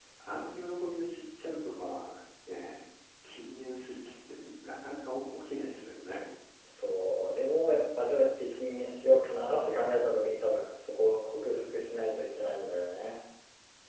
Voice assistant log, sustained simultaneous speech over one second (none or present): none